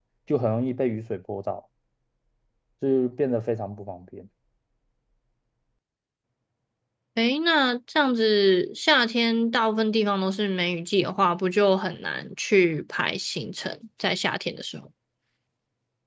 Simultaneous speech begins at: none

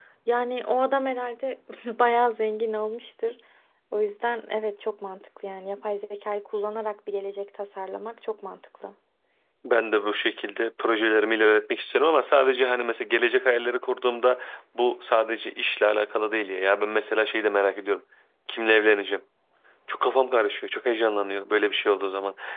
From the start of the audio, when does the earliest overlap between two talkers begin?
none

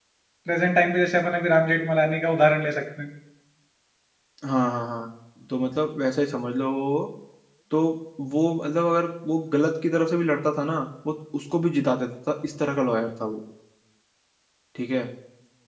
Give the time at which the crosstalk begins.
none

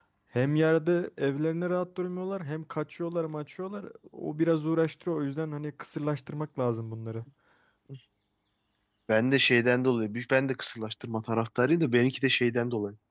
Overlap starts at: none

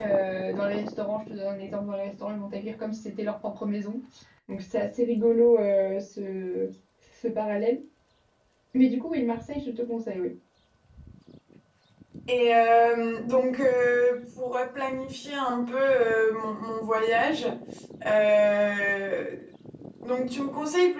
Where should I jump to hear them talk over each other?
none

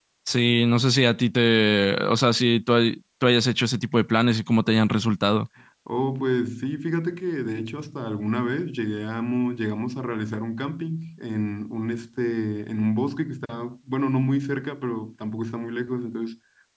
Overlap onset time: none

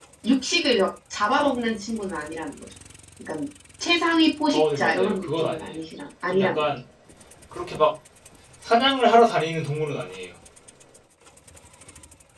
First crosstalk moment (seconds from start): 4.5 s

